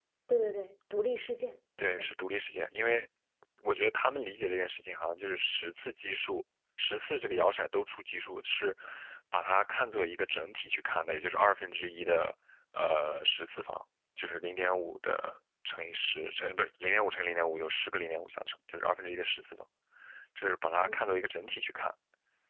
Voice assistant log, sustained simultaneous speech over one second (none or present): none